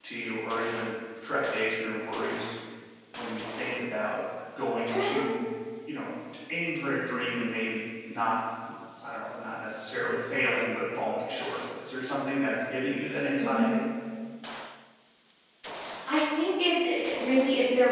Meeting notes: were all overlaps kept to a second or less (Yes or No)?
Yes